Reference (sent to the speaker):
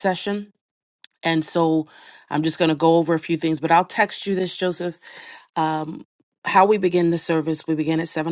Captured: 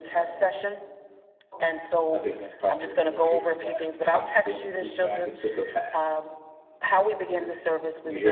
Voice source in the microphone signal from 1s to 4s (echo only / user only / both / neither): both